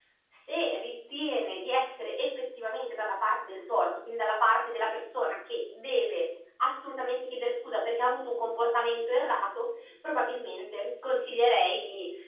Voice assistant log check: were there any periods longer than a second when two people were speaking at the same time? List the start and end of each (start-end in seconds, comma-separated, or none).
none